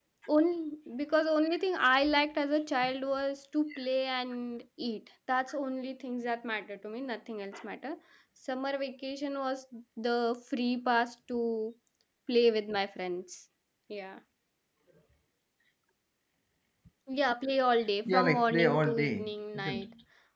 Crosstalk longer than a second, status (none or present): present